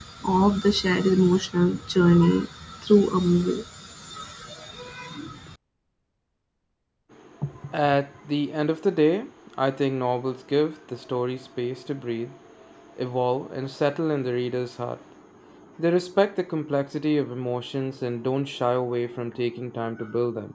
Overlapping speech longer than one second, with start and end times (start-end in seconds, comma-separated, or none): none